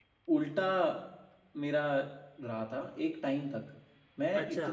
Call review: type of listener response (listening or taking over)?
listening